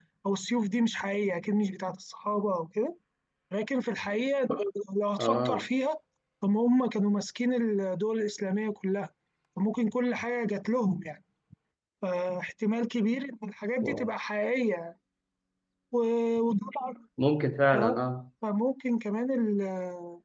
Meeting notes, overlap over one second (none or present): none